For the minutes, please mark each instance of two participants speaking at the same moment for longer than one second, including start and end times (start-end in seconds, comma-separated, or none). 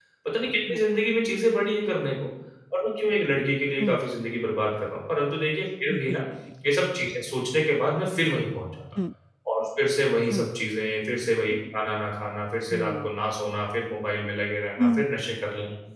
none